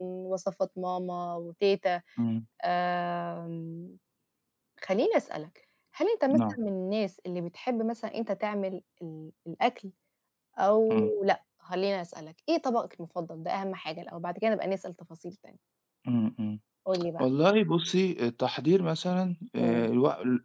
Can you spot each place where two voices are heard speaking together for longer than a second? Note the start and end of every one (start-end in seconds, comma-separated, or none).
none